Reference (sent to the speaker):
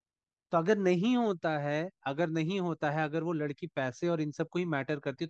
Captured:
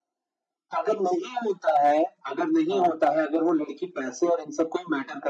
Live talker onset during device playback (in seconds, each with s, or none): 2.7 s